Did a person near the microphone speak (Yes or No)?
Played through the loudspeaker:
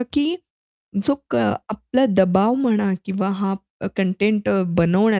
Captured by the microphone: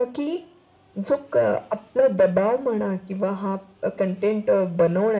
No